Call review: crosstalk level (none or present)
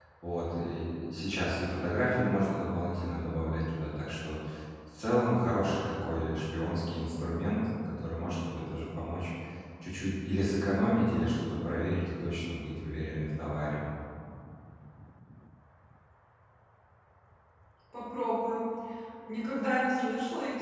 none